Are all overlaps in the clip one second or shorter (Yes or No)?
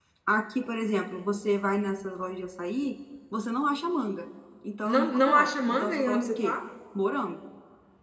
No